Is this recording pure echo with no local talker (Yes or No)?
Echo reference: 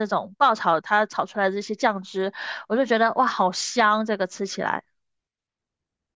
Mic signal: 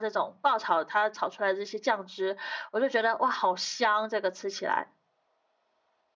Yes